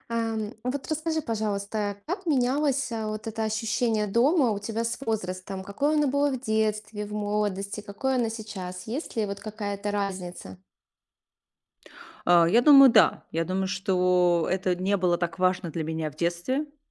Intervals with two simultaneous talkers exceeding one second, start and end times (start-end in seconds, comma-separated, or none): none